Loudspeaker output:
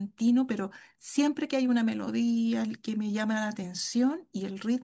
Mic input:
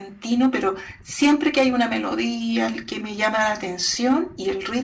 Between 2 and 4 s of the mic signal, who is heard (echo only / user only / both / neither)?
echo only